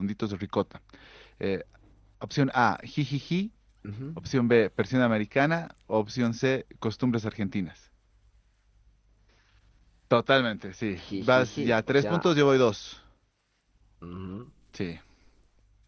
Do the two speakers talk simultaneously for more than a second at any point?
Yes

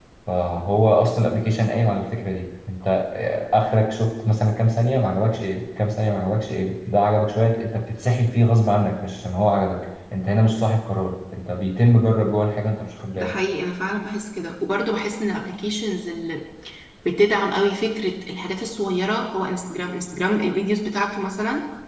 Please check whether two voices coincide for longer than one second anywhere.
No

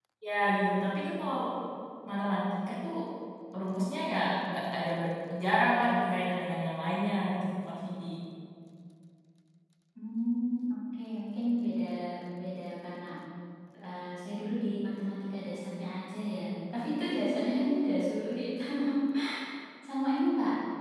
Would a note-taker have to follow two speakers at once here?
No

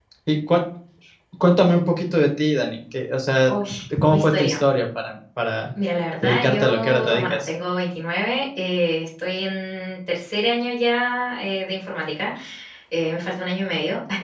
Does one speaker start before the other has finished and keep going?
Yes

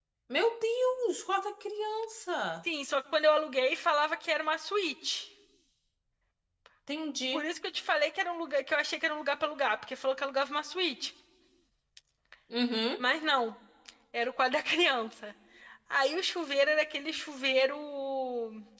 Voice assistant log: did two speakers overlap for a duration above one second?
No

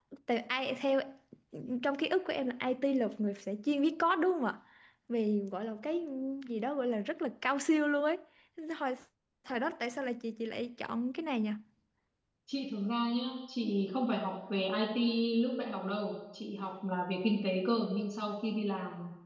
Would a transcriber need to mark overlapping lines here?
No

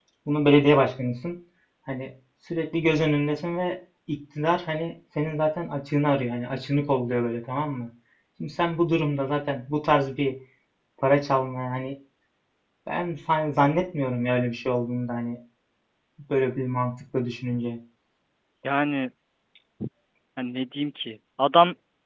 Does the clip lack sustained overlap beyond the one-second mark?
Yes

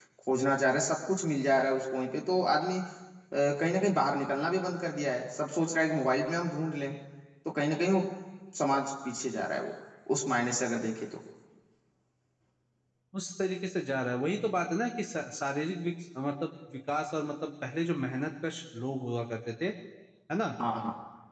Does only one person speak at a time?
Yes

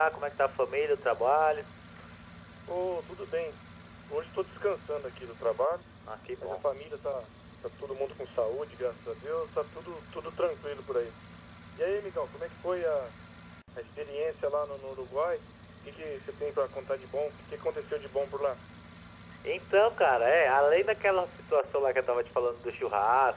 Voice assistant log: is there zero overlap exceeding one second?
Yes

